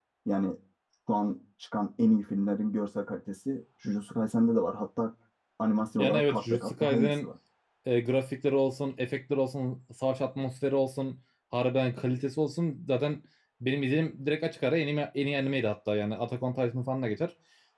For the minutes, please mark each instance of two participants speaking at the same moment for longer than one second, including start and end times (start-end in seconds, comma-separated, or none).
6.0-7.3